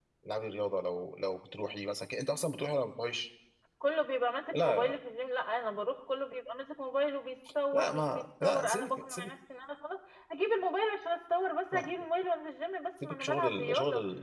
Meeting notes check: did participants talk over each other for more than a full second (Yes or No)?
Yes